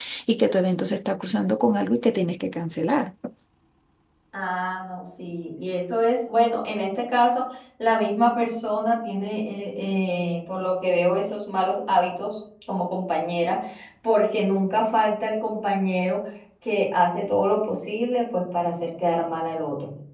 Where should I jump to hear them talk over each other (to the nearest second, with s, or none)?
none